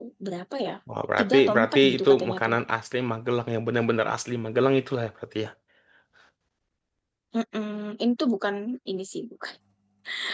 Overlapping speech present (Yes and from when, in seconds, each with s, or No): Yes, from 1.2 s